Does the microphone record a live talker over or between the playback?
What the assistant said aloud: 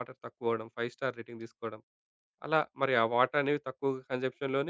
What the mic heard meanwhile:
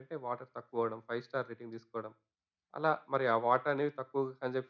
No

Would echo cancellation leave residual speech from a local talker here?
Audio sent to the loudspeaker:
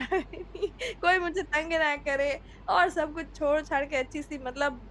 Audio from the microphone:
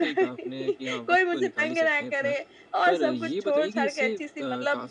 Yes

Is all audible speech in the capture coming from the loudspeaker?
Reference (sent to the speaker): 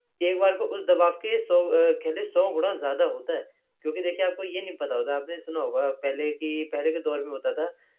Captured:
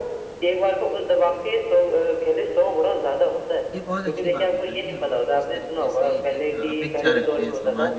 No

